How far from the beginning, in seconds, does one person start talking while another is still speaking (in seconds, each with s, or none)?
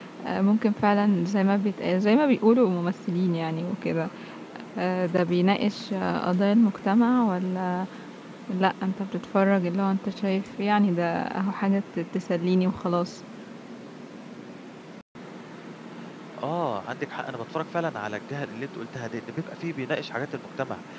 none